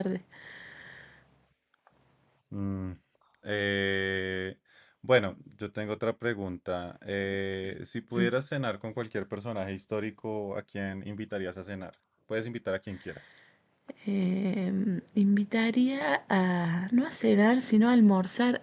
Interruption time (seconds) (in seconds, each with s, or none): none